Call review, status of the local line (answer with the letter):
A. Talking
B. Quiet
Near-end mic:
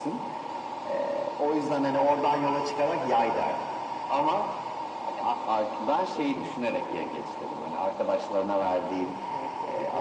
A